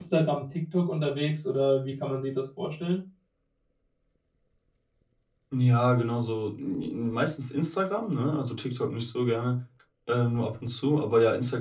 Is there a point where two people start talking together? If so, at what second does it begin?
none

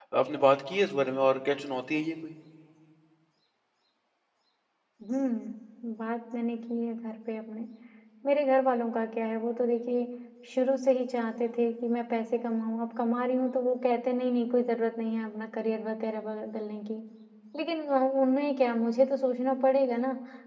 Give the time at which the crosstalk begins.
none

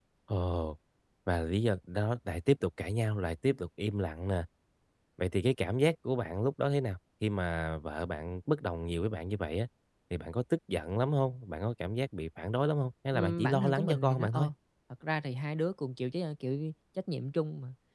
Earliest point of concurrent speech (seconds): 13.1 s

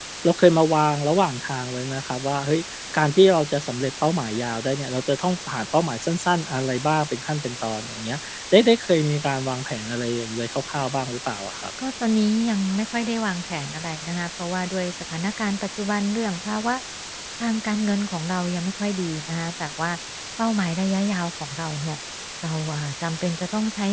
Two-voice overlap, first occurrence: none

